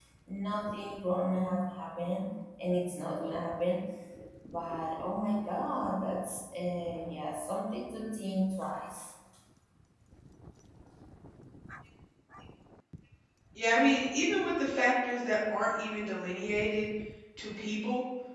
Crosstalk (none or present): none